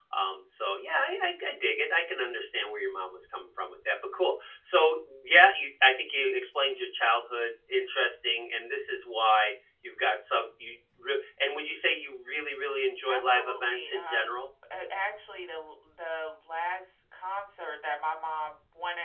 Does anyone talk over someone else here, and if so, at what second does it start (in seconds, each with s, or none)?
13.0 s